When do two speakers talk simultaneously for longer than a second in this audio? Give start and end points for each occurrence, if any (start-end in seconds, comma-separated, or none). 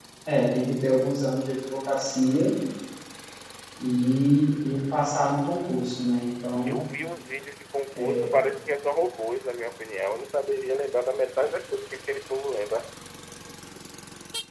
none